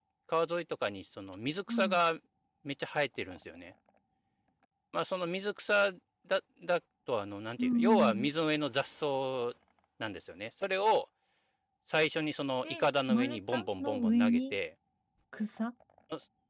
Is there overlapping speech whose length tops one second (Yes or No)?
Yes